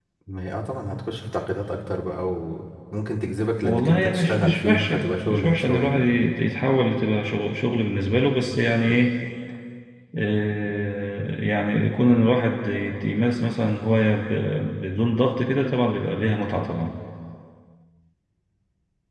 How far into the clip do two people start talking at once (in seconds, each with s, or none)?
3.6 s